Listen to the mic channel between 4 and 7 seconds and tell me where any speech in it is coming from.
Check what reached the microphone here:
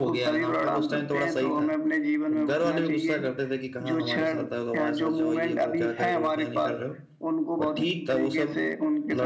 both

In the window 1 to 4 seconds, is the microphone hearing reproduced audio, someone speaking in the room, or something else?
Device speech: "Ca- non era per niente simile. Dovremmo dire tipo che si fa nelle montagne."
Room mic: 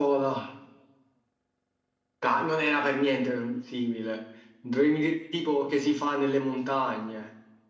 echo only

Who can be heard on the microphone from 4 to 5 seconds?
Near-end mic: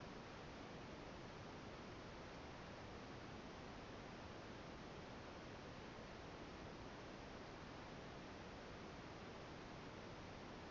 neither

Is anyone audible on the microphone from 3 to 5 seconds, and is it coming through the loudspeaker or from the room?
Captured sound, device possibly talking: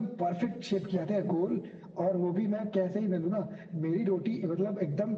echo only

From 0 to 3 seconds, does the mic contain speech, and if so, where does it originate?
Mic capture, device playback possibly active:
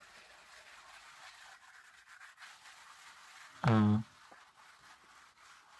neither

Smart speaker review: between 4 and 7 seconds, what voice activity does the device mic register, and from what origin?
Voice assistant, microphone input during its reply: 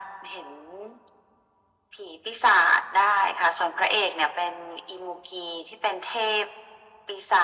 echo only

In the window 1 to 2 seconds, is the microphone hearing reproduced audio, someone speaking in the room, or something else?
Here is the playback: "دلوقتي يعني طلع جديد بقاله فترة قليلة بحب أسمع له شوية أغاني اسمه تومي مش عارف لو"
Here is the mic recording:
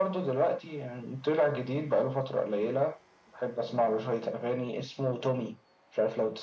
echo only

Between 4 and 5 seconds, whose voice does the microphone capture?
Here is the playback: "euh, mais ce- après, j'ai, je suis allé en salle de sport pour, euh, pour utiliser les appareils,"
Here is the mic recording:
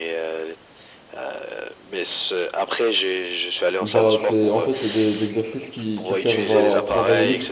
both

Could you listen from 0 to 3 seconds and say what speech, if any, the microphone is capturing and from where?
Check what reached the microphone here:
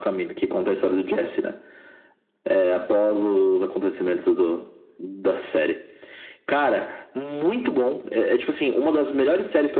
echo only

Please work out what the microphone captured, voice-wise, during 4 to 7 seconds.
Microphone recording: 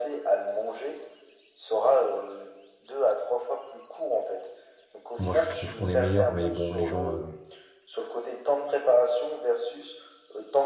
both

